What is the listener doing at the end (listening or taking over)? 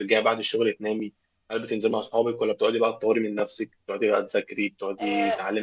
listening